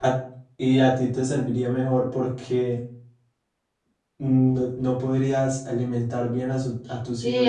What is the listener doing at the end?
taking over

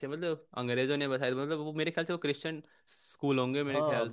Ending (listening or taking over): taking over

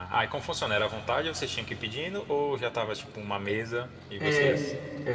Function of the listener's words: taking over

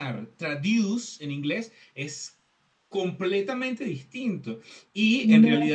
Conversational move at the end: listening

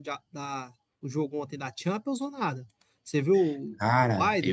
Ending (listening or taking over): taking over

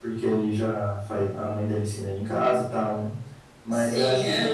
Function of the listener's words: listening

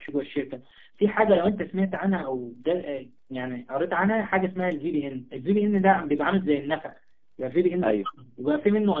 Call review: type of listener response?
listening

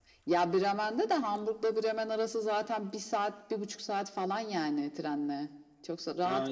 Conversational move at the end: taking over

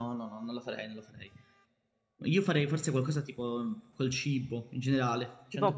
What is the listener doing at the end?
taking over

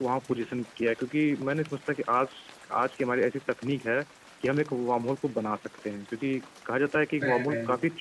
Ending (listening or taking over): listening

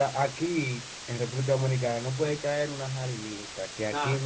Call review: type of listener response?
listening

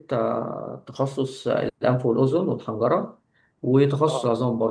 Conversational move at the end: listening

